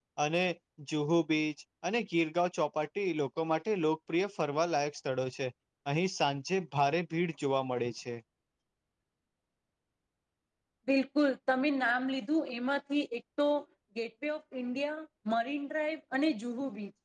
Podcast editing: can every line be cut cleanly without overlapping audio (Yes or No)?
Yes